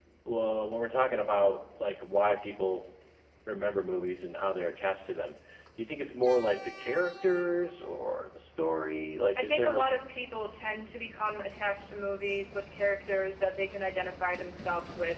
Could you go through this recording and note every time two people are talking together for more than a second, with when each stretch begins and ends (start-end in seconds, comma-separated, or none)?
none